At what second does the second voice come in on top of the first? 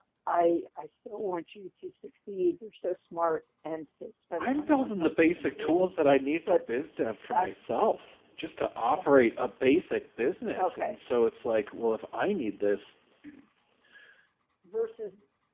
4.4 s

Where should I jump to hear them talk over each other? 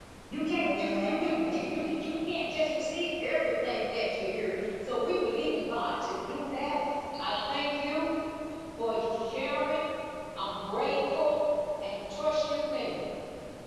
0.6 s

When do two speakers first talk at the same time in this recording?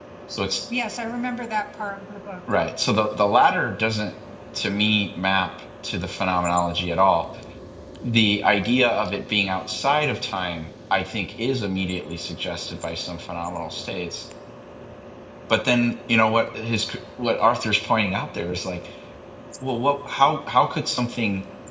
none

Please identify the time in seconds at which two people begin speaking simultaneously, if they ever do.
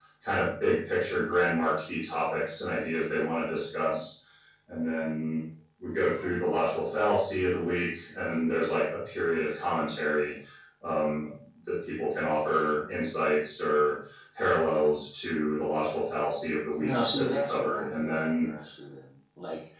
16.7 s

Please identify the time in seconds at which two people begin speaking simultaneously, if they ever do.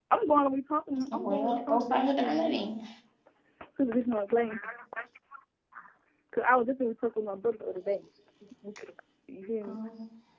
1.1 s

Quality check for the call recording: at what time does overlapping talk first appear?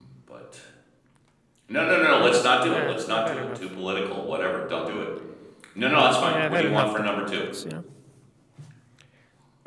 2.2 s

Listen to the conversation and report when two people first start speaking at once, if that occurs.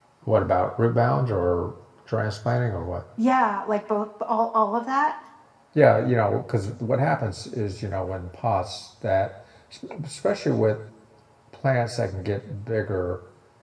none

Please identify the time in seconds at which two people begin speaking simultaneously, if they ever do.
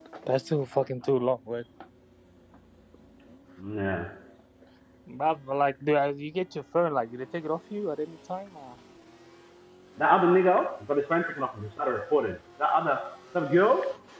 none

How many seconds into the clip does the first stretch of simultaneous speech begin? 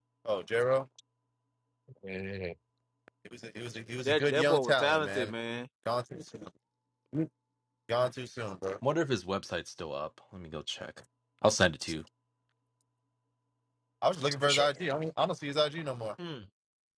4.0 s

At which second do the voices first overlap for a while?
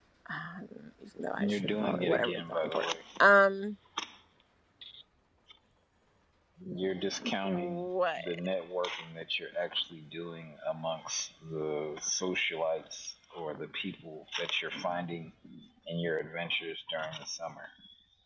1.4 s

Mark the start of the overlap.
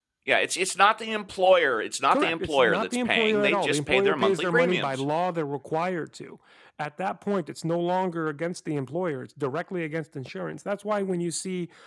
2.1 s

